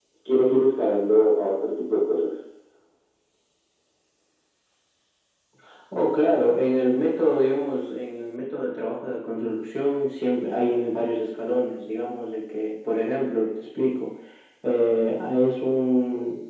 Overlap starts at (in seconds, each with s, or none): none